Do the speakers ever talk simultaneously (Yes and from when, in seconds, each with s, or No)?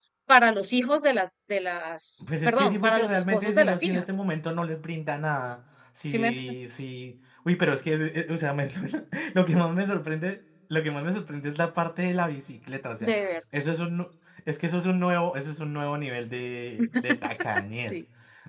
Yes, from 2.4 s